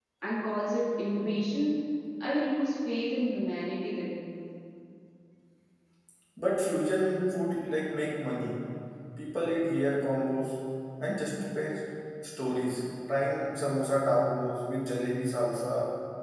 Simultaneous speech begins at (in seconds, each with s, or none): none